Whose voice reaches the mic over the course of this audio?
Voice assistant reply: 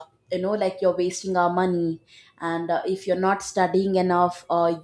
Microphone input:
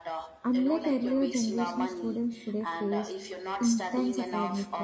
both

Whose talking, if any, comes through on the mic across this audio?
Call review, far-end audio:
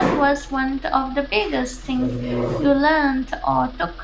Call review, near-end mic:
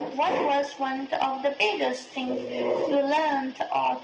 echo only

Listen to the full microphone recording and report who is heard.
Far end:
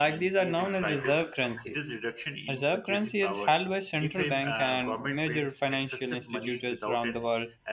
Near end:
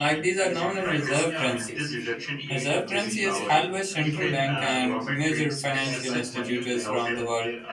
both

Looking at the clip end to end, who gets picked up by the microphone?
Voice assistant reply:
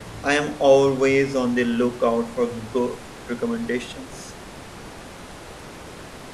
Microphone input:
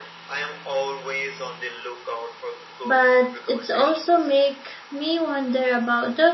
both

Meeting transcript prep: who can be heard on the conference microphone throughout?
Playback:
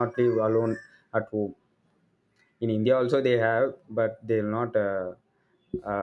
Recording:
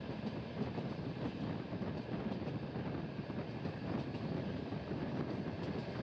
neither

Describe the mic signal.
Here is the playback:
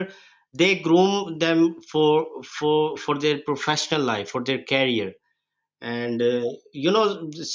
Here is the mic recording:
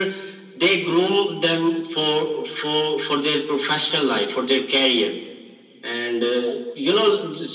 echo only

